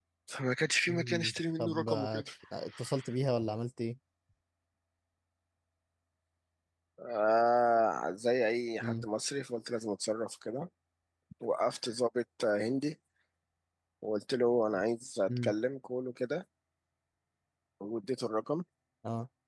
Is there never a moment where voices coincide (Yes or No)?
No